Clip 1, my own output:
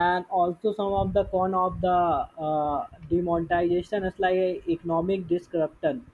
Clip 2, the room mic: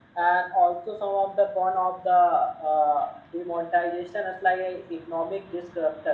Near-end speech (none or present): none